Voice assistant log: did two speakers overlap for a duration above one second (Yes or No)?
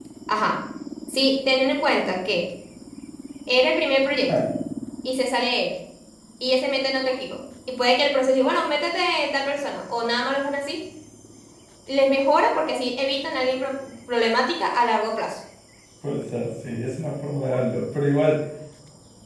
No